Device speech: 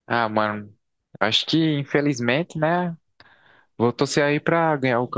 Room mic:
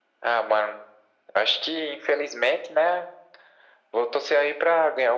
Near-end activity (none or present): none